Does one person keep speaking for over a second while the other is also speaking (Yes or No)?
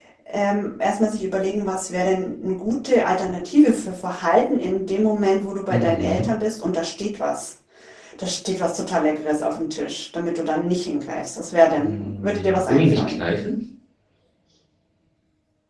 Yes